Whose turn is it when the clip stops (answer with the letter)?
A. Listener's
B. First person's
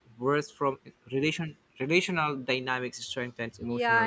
A